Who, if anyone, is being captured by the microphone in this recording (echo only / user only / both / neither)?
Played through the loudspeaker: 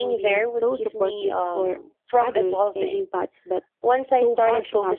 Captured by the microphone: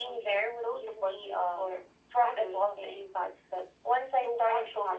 echo only